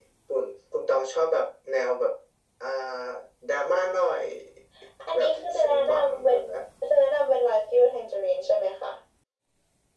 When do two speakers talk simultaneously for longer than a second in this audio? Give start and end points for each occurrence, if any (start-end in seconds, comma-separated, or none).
5.1-6.4